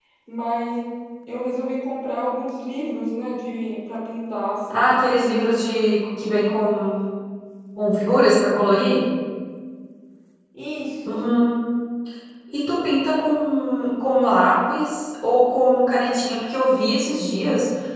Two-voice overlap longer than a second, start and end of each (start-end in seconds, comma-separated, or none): none